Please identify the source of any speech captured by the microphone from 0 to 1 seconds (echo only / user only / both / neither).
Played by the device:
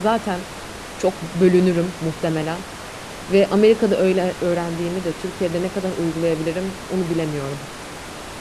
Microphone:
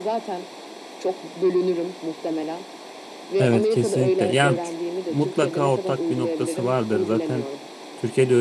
echo only